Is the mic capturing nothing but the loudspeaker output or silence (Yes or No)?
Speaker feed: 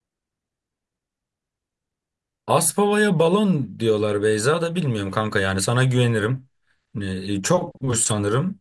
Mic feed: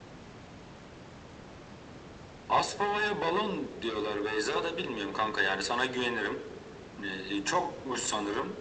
Yes